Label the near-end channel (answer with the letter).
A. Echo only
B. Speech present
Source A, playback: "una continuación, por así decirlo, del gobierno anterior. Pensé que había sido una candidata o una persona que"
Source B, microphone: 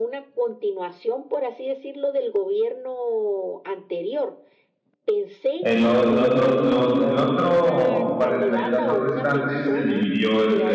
B